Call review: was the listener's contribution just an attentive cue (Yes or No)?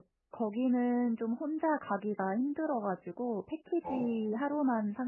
Yes